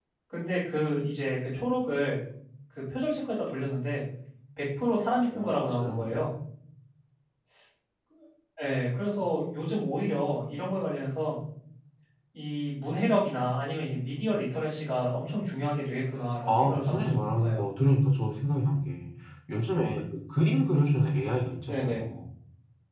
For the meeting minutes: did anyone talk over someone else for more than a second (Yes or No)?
Yes